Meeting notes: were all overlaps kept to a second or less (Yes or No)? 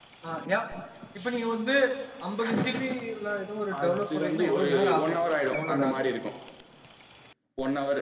No